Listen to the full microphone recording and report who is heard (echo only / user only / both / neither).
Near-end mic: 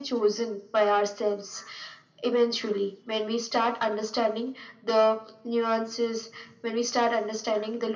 echo only